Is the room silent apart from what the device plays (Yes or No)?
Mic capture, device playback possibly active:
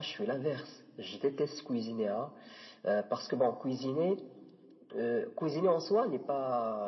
Yes